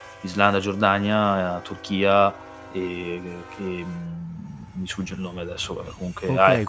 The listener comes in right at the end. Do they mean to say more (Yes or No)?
Yes